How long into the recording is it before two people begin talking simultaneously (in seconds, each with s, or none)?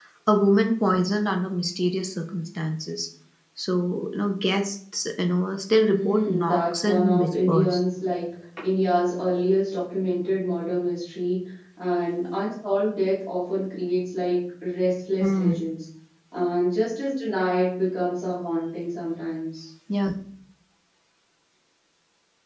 5.9 s